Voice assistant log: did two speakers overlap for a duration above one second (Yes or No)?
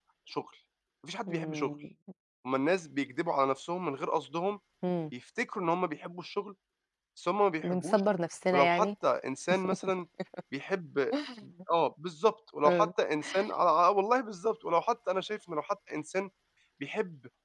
No